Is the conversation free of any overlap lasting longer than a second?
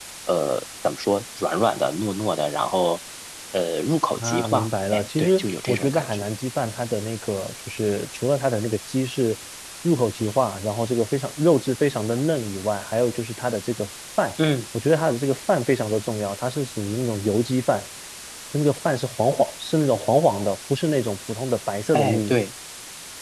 No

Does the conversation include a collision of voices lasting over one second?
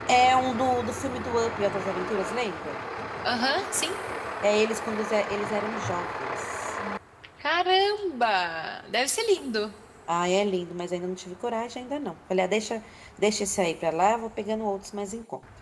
No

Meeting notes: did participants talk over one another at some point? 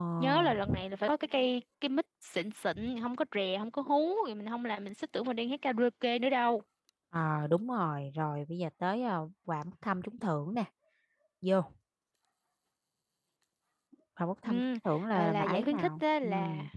Yes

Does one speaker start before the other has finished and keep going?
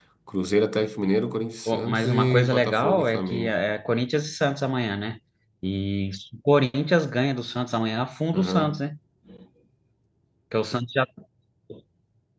Yes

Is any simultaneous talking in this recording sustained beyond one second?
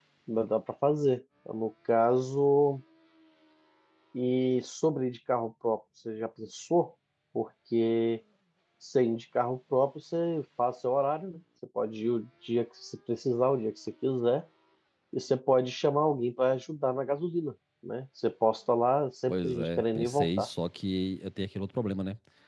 Yes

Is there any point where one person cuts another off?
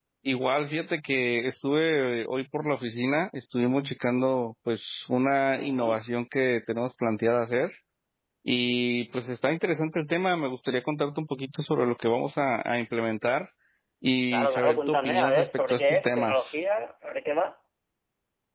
Yes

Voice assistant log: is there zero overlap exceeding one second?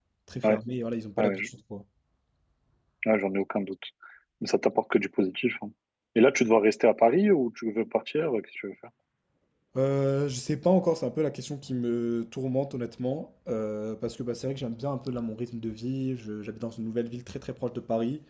Yes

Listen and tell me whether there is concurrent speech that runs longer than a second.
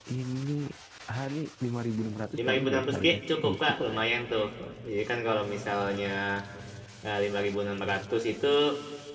Yes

